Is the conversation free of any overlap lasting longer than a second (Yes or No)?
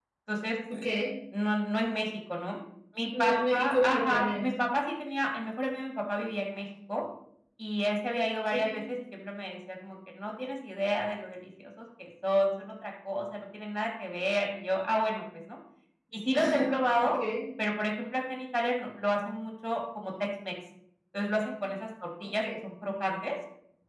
No